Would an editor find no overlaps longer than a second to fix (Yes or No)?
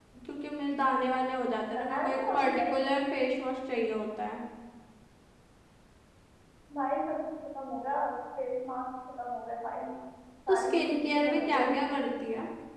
No